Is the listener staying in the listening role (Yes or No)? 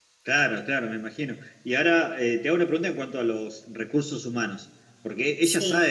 Yes